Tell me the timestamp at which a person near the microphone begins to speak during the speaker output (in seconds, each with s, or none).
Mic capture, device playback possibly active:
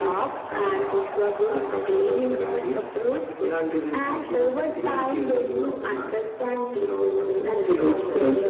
7.4 s